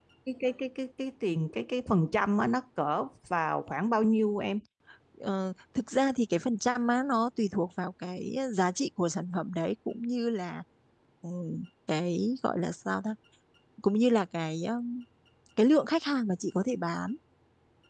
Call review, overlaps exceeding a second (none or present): none